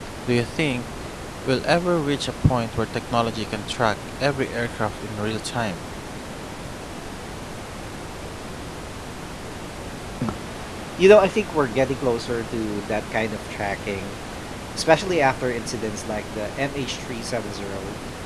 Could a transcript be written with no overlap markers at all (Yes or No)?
Yes